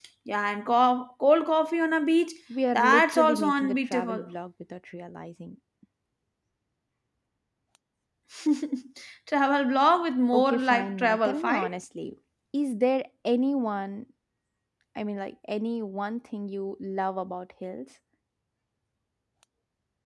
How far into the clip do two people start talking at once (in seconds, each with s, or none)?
2.7 s